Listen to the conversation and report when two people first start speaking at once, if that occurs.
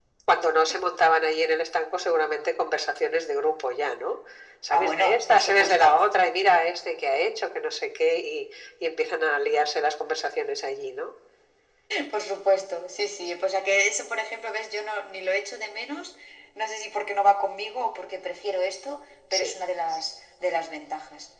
4.7 s

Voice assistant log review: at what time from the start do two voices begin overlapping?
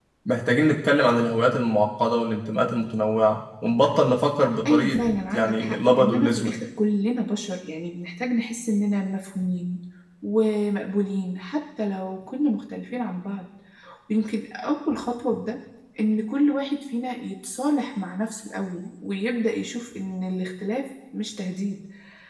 4.6 s

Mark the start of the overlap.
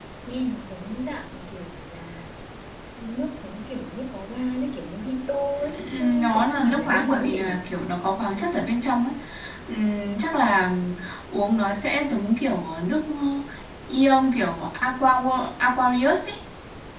5.6 s

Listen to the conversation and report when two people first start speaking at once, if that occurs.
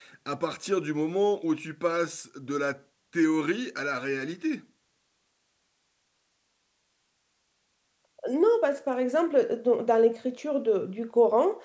none

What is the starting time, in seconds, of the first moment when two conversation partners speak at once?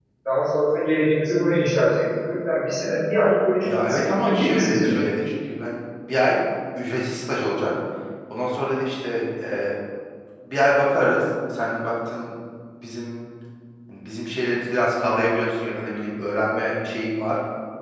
3.6 s

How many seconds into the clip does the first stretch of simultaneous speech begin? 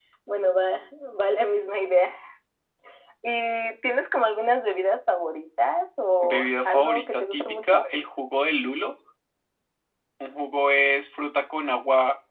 6.2 s

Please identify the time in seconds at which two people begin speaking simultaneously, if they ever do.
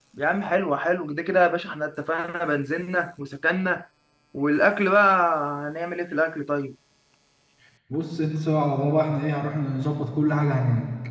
none

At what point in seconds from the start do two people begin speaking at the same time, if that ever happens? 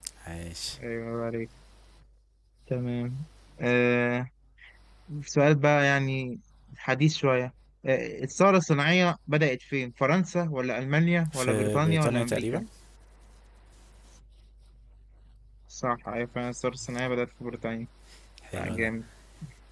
11.3 s

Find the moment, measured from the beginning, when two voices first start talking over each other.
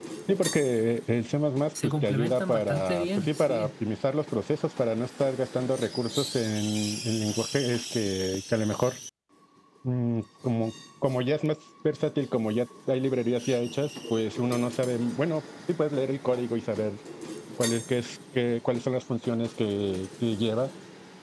1.8 s

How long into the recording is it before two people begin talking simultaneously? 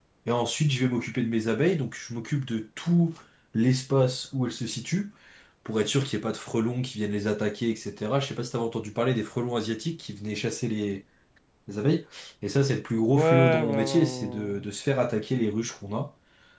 13.1 s

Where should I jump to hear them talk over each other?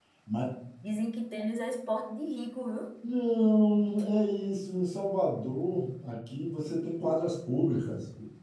none

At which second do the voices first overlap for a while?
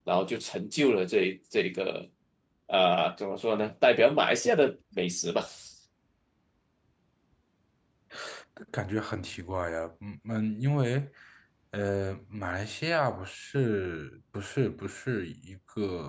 none

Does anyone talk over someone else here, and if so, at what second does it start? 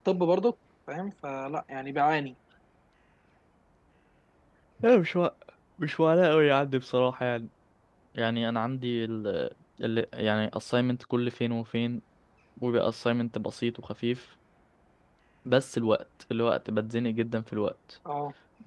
none

